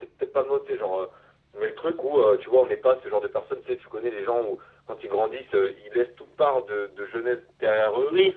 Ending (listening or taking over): listening